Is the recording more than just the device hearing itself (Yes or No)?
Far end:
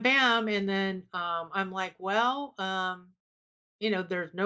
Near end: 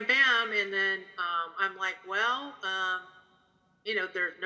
No